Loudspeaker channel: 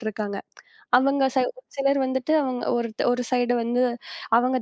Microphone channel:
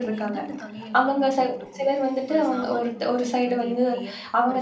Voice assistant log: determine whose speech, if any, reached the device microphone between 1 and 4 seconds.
both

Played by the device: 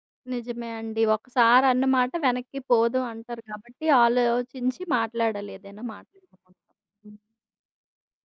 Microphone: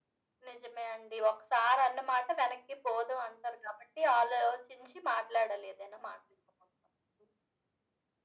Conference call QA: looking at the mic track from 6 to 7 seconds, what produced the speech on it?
echo only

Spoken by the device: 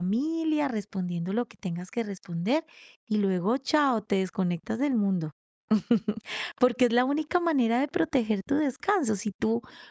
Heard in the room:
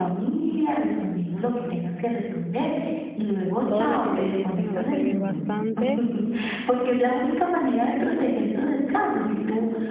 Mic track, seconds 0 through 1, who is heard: echo only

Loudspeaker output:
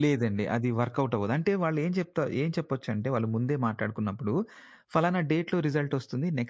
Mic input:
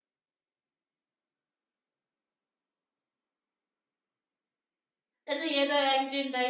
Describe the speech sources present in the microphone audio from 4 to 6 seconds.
user only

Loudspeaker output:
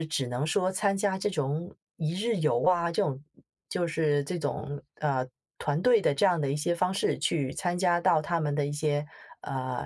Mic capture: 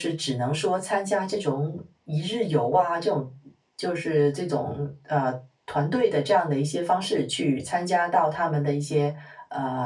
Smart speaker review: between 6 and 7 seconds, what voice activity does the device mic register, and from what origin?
echo only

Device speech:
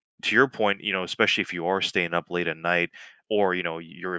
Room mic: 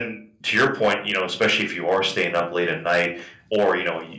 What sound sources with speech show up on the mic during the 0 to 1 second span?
echo only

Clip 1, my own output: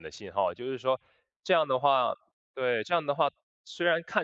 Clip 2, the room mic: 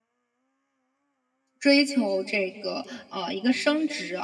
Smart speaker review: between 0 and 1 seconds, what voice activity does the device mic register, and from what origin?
neither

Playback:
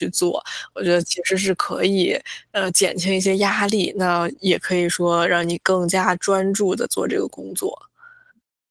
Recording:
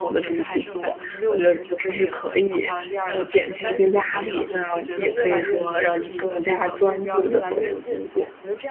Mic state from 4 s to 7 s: both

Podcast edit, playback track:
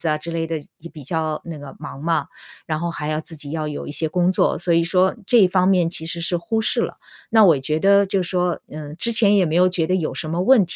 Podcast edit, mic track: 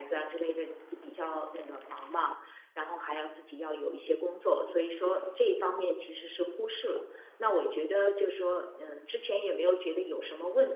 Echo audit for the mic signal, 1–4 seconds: echo only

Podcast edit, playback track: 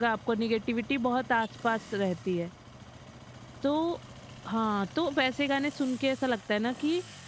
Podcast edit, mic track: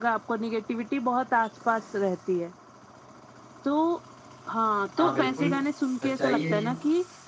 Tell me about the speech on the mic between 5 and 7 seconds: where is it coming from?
both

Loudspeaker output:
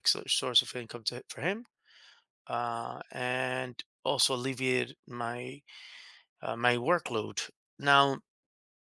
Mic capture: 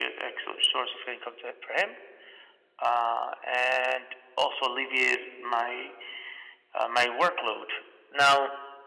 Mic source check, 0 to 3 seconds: echo only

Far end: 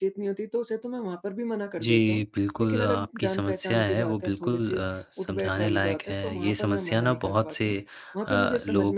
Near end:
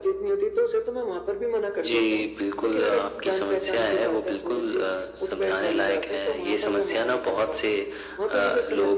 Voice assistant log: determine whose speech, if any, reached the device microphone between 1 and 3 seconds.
echo only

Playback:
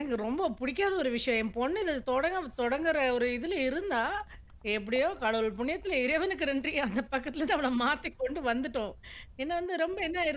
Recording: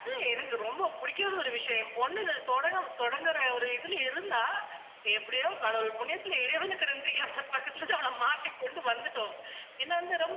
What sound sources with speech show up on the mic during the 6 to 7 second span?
echo only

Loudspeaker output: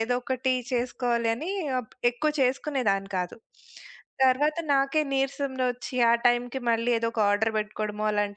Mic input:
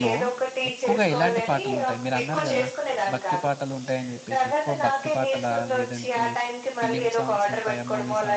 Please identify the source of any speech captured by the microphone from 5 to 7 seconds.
both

